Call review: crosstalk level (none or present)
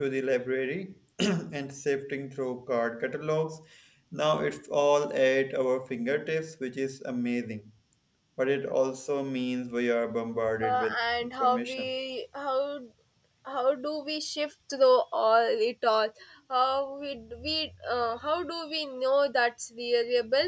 present